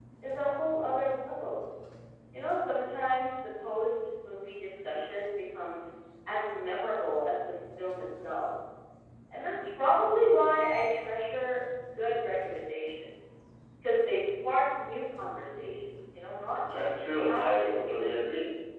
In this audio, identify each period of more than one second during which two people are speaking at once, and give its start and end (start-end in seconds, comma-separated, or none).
16.7-18.1